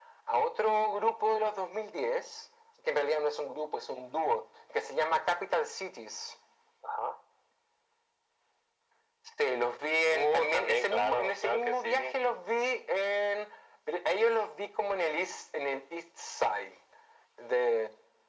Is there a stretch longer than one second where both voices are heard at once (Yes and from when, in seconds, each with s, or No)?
Yes, from 10.1 s